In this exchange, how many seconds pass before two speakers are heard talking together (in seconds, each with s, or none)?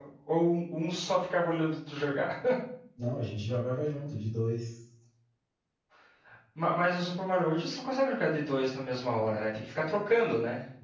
none